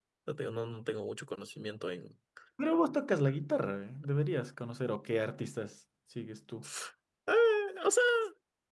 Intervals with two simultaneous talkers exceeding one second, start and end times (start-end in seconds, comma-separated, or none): none